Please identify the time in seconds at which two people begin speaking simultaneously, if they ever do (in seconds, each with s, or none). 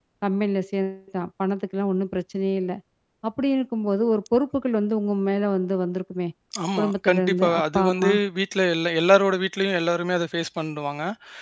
6.8 s